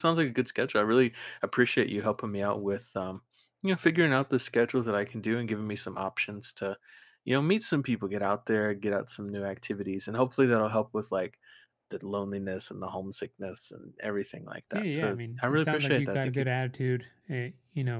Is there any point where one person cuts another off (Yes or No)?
Yes